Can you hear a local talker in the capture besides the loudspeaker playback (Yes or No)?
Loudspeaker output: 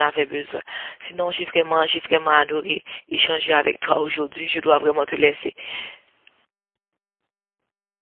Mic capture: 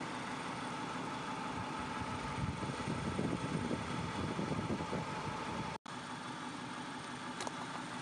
No